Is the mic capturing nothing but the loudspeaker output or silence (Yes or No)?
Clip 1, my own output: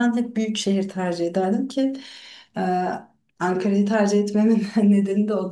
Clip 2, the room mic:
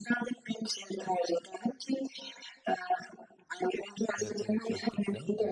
No